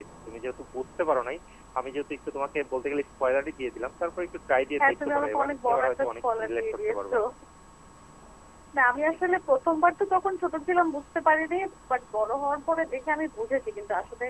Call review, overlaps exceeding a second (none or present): present